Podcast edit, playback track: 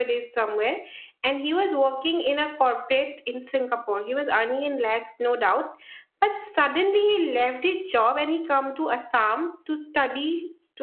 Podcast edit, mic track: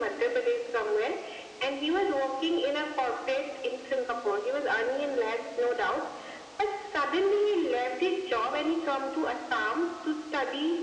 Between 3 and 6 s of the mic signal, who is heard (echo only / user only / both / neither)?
echo only